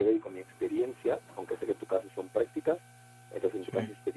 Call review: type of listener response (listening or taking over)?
listening